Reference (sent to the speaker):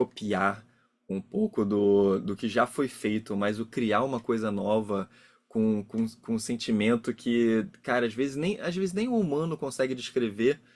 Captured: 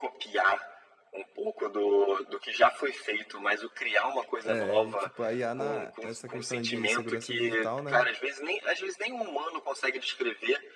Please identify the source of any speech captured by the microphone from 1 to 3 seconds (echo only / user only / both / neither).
echo only